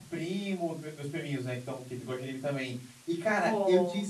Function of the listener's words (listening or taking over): listening